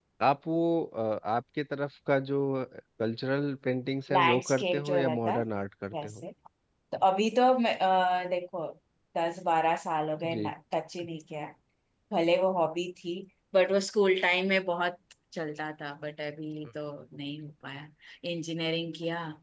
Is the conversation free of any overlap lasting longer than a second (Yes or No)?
No